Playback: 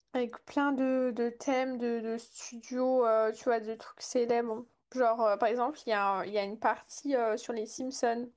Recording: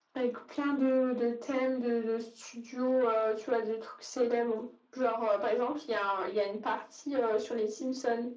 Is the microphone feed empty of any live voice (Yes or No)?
Yes